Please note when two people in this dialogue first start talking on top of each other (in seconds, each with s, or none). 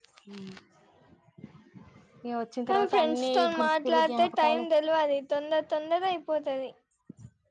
2.7 s